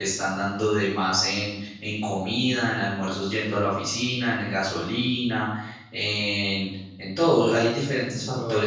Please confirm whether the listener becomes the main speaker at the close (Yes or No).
No